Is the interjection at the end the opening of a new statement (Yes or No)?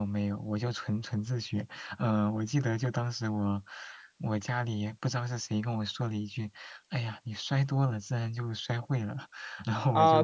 Yes